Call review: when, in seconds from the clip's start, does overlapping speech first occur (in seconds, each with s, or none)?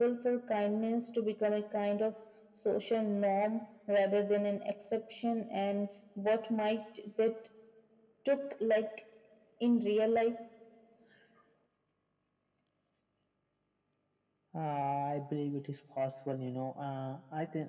none